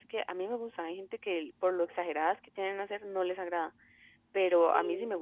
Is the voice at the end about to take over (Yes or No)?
No